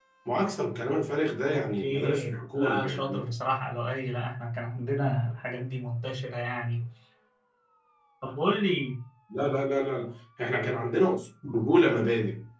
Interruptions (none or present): present